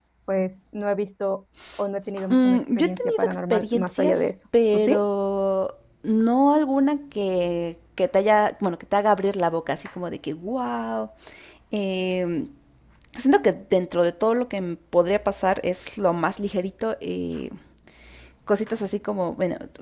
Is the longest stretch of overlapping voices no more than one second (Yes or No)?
No